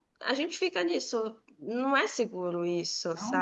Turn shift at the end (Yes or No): Yes